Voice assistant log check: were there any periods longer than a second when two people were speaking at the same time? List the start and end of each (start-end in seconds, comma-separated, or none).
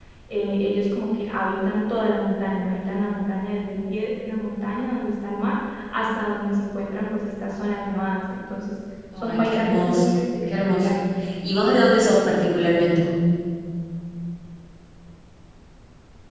9.2-11.0